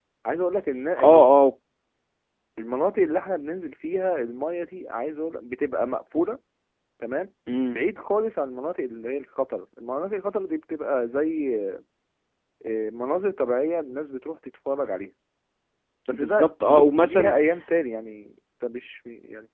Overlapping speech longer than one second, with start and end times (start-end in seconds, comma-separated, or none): 16.1-17.3